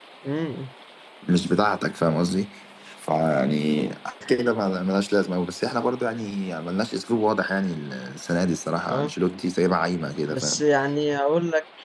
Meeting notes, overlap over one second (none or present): none